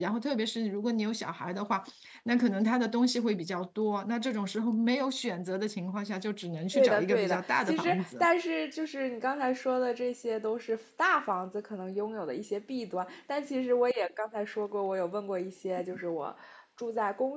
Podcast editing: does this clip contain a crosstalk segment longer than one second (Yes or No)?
Yes